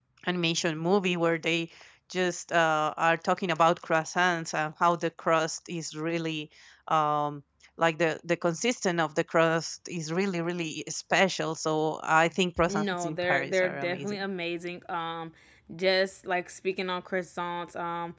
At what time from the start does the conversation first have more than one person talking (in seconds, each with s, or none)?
12.6 s